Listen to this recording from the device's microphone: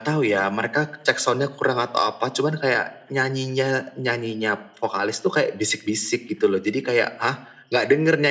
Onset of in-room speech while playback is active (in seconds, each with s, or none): none